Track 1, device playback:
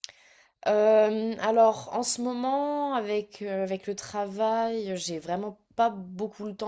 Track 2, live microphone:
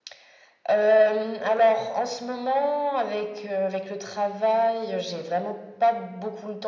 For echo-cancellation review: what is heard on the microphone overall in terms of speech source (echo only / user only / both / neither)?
echo only